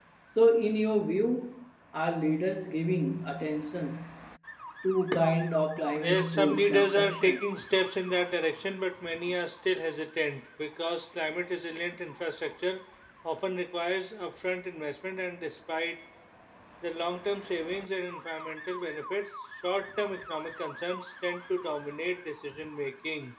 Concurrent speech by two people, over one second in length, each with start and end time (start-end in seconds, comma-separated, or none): 6.0-7.4